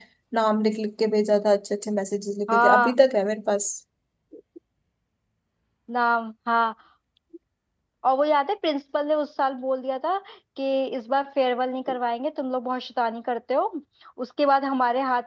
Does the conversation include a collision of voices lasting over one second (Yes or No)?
No